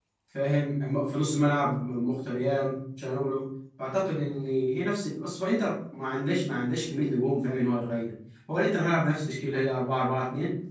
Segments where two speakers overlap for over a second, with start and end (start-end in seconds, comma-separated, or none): none